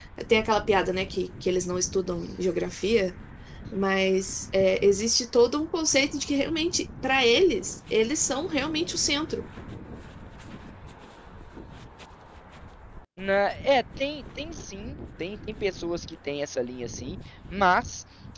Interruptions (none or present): none